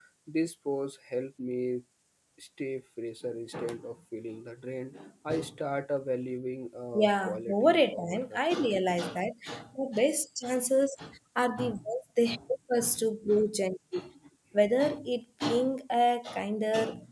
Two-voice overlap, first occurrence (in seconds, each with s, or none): 6.9 s